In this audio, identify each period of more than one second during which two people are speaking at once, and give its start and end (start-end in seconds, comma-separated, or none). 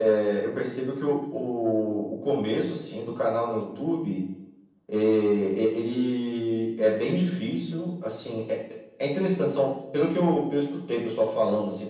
none